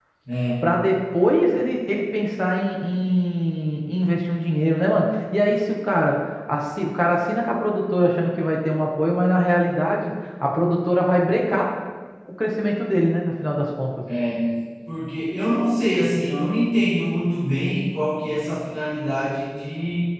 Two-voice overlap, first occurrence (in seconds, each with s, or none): none